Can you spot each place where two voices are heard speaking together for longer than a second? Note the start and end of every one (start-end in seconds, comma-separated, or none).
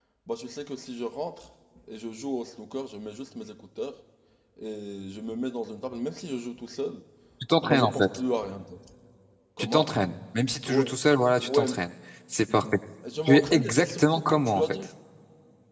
13.2-14.9